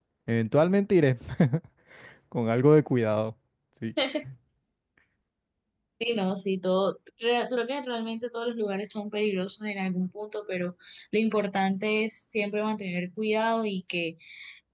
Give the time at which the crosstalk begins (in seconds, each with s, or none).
none